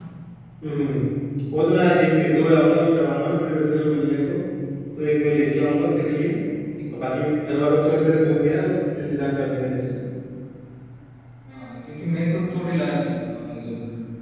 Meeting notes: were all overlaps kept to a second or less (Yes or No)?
Yes